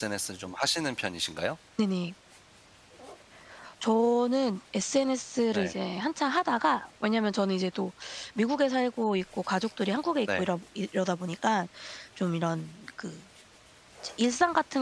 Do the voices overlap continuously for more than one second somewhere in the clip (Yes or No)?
No